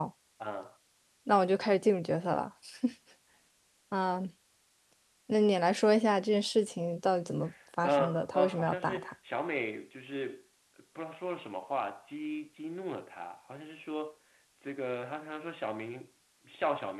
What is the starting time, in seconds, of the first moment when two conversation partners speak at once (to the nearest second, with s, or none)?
8 s